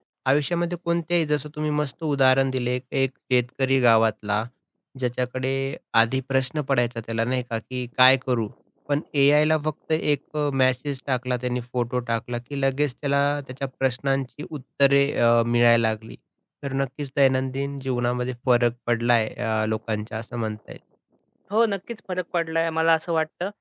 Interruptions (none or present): none